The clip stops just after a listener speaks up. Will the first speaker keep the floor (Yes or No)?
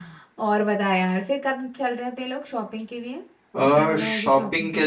No